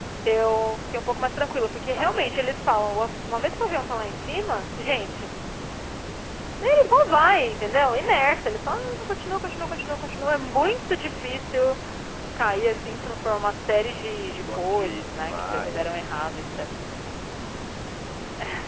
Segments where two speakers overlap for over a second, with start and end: 14.4-15.9

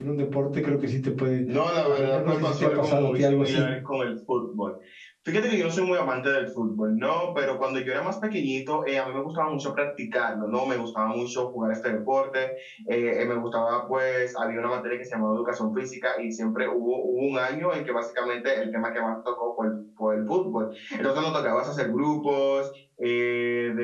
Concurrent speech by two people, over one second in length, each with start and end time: 1.8-3.6

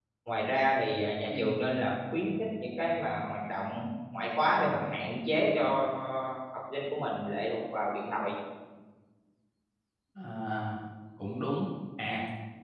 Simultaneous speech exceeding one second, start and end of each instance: none

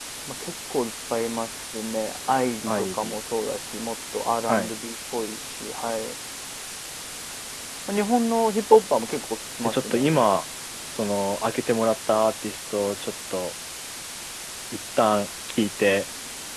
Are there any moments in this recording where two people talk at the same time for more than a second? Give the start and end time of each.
none

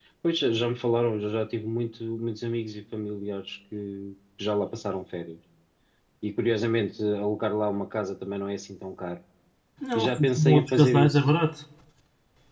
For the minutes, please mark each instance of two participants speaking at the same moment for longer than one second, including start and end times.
9.9-11.2

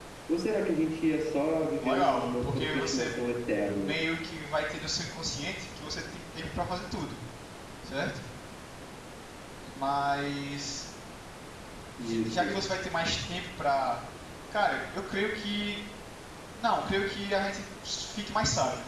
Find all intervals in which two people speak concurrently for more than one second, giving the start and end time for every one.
1.6-3.1

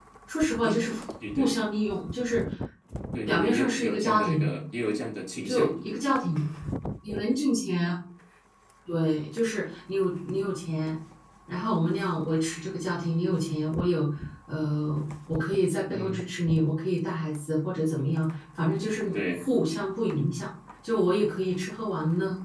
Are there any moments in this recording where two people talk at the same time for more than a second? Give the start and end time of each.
3.3-4.5

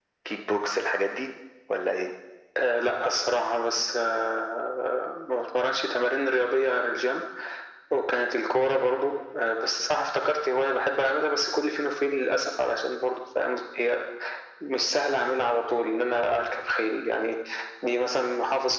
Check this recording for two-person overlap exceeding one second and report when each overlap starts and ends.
none

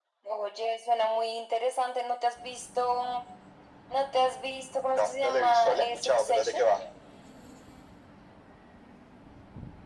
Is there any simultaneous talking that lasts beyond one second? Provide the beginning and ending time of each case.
4.9-6.6

